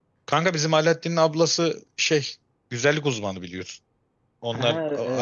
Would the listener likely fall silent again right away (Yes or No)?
Yes